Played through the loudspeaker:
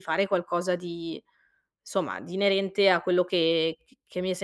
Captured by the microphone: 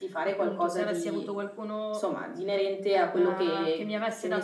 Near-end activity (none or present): present